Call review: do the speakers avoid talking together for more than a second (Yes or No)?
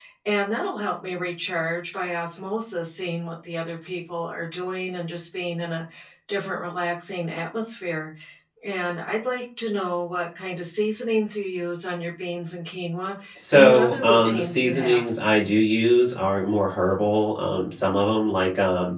No